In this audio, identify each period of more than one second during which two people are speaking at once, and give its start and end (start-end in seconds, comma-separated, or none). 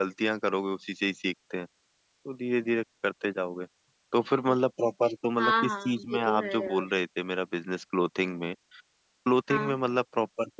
5.4-6.9